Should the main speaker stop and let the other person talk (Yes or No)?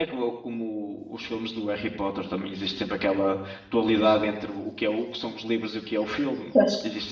Yes